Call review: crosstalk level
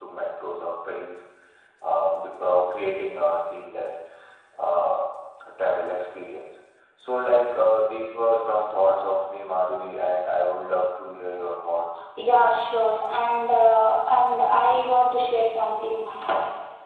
none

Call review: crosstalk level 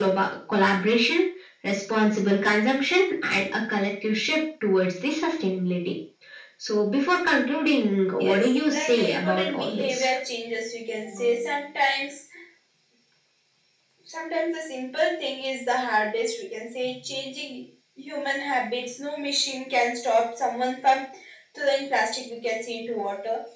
present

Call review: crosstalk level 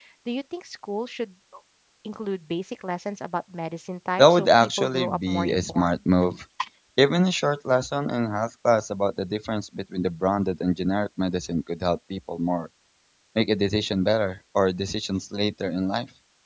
present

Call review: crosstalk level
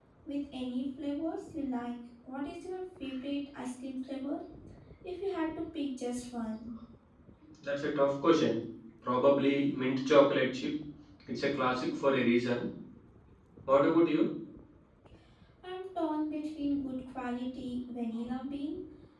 none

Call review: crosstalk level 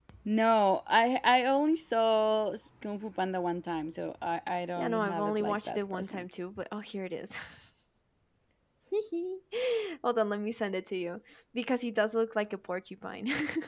present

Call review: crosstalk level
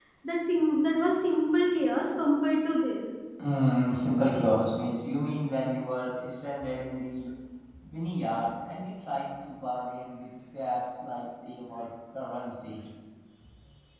none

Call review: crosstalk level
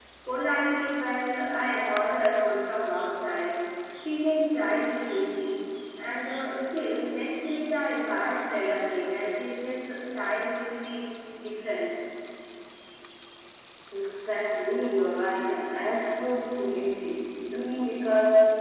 none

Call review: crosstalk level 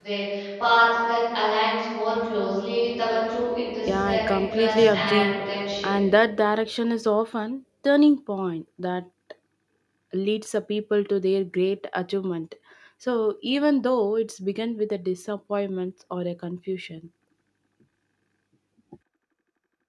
present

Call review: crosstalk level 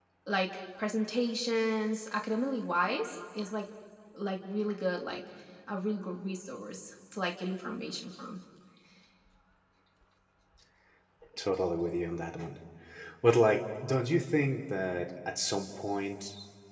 none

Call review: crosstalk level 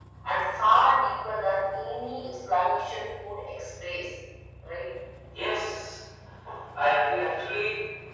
none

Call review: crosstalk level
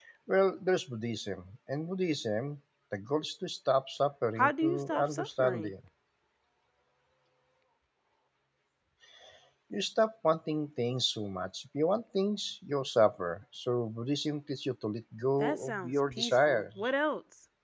present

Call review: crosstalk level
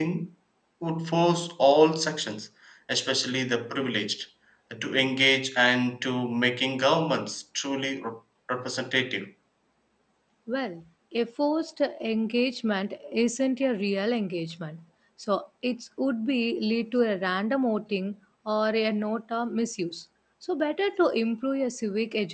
none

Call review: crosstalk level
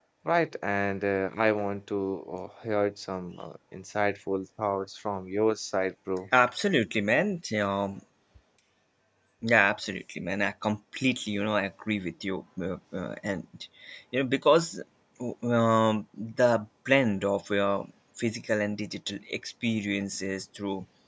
none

